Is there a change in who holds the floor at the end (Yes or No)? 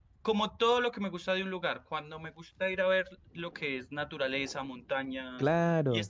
No